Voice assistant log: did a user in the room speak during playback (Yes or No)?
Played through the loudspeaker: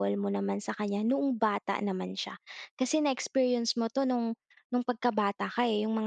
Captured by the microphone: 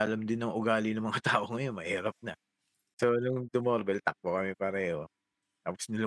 Yes